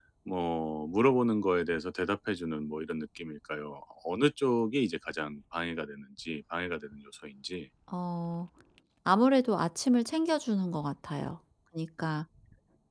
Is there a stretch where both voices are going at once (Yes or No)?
No